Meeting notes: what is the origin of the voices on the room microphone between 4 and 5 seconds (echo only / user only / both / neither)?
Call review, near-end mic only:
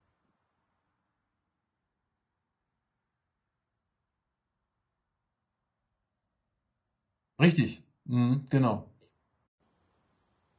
neither